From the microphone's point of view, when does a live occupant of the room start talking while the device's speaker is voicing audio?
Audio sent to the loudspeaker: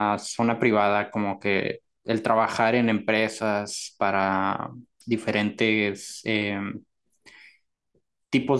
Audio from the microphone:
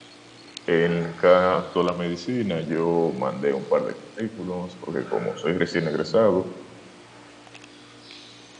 0.7 s

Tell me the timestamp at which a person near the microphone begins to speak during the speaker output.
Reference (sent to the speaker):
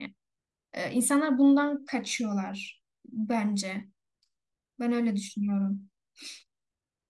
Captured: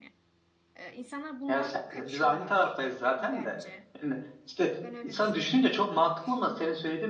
1.5 s

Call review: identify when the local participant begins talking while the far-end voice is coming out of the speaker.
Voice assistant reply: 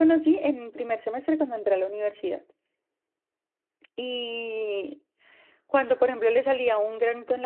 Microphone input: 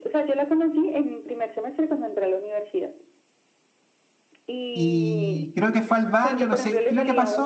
4.7 s

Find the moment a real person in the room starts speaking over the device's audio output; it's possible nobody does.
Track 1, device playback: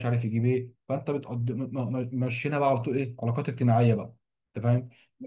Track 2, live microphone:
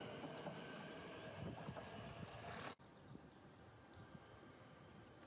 none

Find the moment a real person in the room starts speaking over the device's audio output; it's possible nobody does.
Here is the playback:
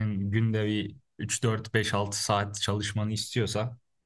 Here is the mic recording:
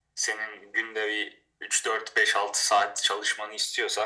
none

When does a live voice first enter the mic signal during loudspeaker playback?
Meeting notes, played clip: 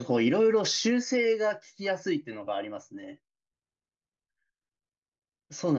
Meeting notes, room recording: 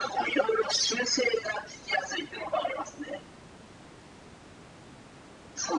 none

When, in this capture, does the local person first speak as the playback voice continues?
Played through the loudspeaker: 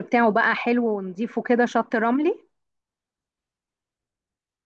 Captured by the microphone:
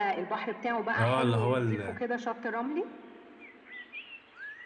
1.0 s

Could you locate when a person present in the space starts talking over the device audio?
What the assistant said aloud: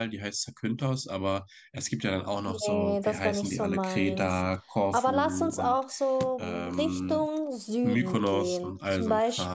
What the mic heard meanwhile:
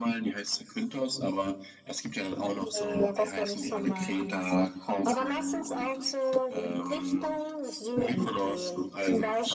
none

